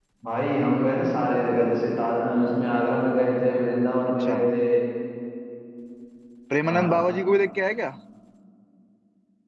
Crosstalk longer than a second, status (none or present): none